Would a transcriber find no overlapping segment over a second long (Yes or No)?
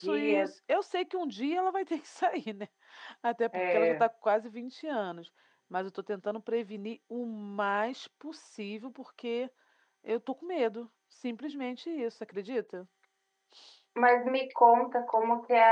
Yes